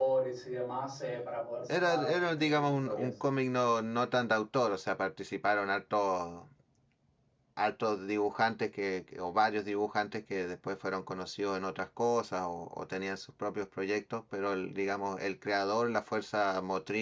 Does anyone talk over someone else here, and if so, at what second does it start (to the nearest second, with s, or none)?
2 s